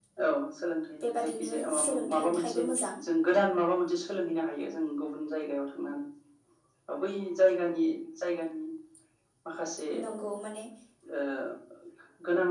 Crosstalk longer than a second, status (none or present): present